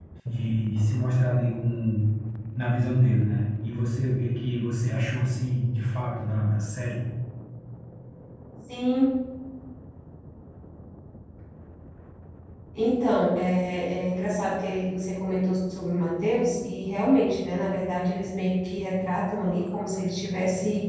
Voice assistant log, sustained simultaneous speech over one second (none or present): none